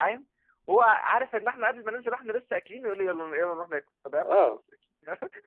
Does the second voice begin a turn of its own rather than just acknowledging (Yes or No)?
No